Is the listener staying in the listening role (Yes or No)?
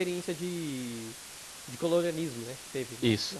No